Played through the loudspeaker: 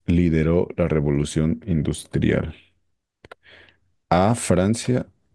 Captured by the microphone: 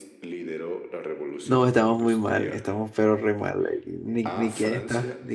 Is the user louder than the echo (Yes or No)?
Yes